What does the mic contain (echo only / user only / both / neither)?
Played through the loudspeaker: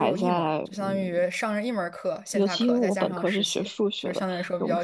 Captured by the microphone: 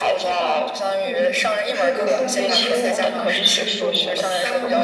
both